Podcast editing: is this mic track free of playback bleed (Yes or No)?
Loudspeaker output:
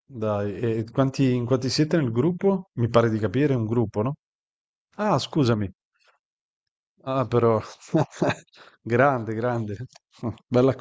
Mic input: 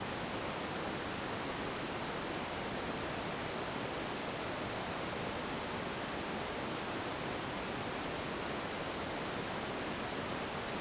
Yes